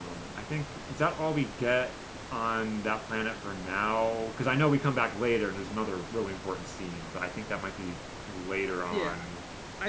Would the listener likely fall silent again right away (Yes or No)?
No